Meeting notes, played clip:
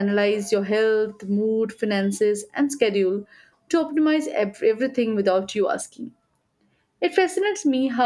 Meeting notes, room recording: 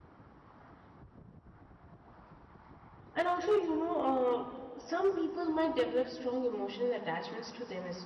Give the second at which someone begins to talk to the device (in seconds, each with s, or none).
3.1 s